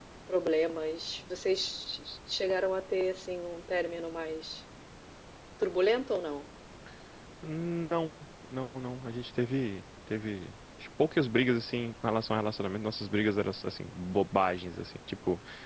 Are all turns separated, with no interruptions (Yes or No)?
Yes